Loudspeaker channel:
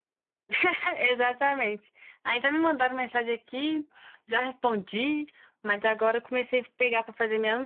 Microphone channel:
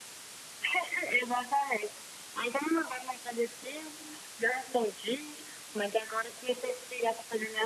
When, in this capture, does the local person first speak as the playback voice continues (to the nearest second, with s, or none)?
none